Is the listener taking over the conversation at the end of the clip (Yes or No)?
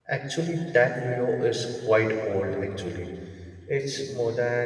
No